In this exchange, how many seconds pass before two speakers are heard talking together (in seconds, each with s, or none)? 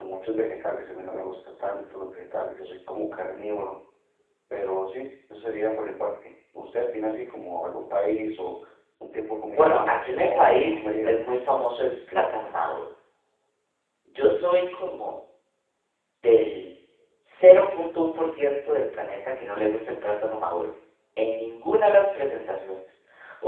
9.5 s